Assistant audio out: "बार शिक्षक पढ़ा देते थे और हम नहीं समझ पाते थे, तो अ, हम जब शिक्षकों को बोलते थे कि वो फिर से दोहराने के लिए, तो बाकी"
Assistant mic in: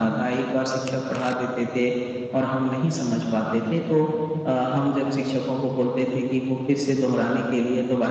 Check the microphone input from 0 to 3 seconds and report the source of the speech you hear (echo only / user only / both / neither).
echo only